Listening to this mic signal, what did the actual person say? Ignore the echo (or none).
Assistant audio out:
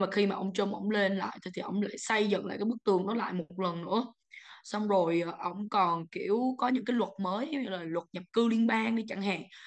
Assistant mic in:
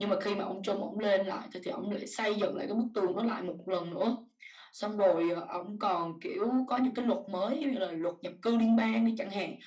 none